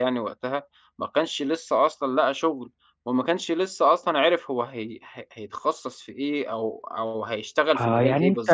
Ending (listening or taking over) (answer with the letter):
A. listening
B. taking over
B